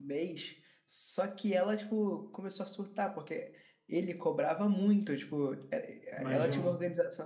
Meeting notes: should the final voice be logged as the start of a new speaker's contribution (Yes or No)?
No